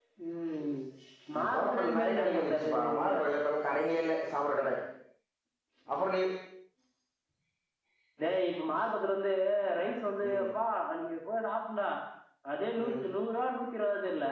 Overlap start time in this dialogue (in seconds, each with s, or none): 1.5 s